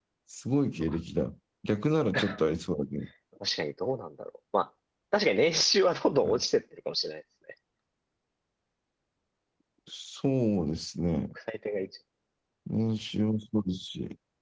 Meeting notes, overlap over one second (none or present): none